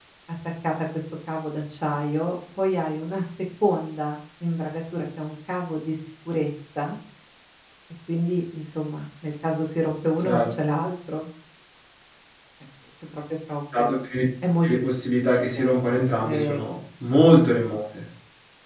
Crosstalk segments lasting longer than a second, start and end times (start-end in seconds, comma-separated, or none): 14.7-16.6